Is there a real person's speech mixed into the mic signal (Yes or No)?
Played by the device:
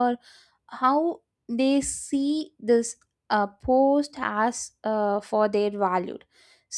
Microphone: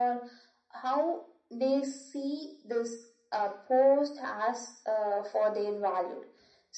No